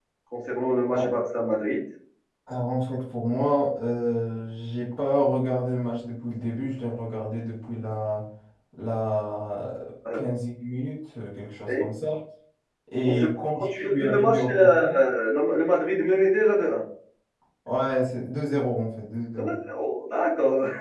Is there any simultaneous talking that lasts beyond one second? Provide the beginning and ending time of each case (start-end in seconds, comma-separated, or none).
13.1-14.8